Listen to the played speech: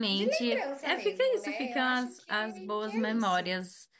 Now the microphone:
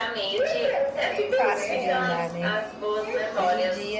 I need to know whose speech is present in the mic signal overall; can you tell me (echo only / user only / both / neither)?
both